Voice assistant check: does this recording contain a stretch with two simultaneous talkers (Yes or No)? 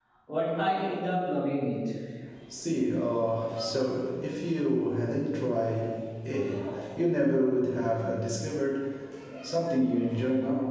No